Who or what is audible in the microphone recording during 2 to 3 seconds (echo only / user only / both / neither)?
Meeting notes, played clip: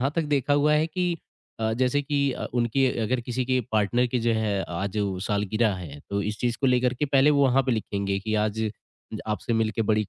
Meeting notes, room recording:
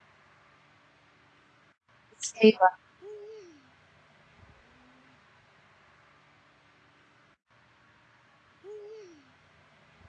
user only